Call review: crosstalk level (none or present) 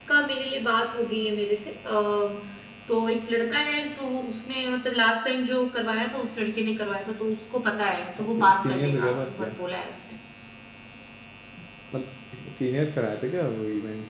present